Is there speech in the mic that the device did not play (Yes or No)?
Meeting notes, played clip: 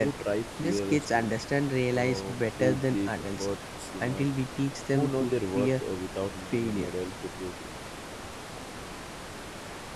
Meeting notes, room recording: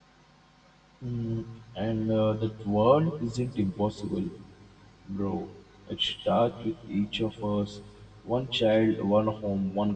Yes